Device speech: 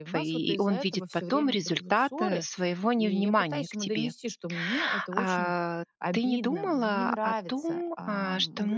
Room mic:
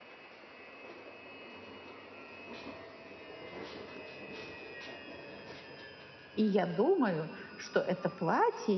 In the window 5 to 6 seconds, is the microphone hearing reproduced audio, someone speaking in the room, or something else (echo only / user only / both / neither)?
neither